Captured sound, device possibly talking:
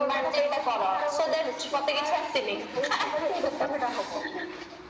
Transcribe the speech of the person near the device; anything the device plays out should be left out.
none

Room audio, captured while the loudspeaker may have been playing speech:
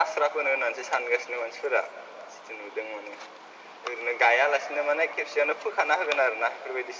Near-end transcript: none

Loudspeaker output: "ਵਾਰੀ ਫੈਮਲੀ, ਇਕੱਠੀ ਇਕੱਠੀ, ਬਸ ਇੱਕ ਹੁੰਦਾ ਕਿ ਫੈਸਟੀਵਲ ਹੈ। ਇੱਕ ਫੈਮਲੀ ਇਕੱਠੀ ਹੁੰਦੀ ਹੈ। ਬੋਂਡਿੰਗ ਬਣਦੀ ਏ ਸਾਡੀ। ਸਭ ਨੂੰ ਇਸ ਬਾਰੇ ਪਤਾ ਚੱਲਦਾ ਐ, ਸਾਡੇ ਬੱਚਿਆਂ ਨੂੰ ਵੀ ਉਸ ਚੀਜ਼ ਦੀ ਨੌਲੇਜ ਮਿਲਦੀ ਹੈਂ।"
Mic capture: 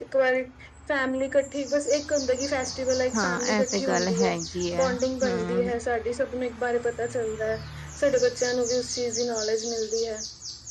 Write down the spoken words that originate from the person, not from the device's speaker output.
ਹਾਂ ਇਹ ਤੇ ਗੱਲ ਹੈਗੀ ਹੈ ਹਮ

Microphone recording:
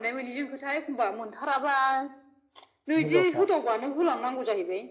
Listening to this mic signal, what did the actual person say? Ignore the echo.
हिन्जावसा

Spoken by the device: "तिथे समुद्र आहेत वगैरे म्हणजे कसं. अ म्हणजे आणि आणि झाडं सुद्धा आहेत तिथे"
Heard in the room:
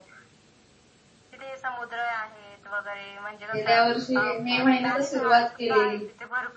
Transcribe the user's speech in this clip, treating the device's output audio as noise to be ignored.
गेल्या वर्षी मे महिन्यात सुरुवात केलेली.

